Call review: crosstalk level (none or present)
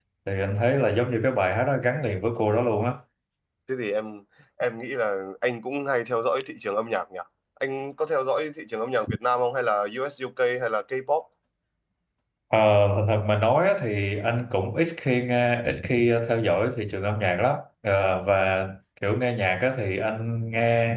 none